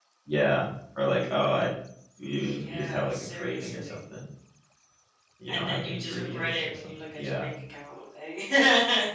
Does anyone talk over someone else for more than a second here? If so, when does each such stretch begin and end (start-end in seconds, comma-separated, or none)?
2.3-4.0, 5.5-7.5